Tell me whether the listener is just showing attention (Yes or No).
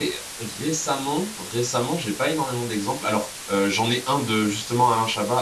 Yes